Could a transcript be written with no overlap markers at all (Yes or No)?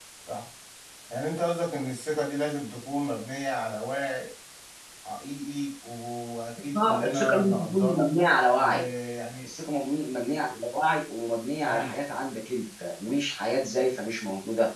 No